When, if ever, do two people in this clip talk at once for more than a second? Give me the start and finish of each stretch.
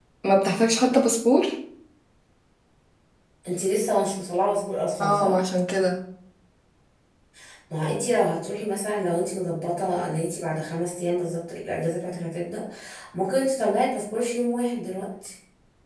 none

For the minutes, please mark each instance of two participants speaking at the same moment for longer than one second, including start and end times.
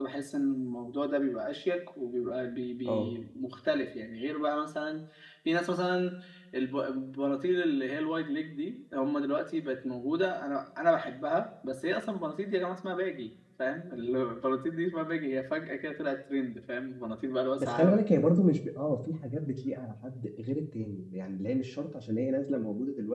none

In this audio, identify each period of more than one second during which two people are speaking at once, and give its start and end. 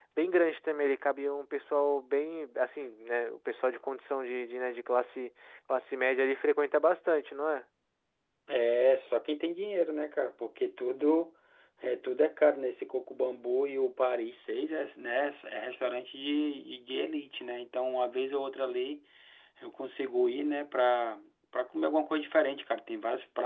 none

